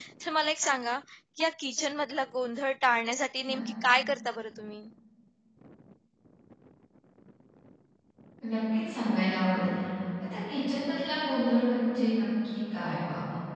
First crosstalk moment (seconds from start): none

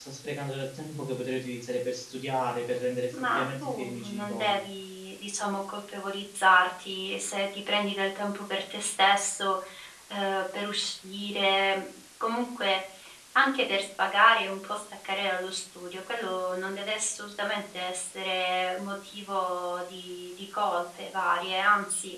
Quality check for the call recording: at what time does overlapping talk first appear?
3.1 s

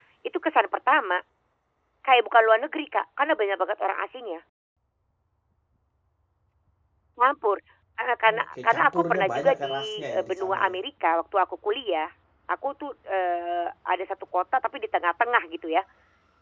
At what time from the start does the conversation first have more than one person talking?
8.4 s

